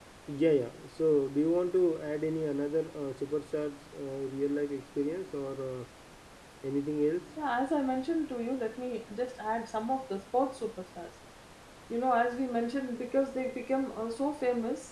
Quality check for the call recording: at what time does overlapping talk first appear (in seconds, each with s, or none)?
none